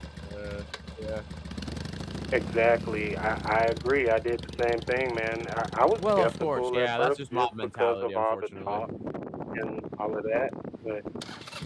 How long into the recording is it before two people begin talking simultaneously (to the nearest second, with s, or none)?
6 s